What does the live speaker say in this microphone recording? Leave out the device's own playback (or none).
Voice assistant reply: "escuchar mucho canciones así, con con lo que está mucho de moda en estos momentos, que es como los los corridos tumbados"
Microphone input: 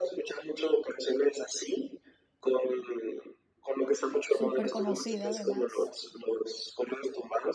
Súper conocida además.